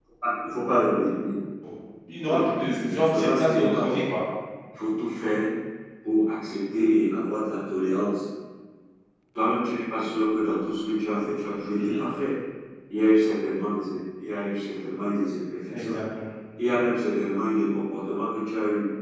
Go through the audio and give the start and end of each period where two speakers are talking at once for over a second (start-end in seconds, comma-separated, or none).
2.3-4.0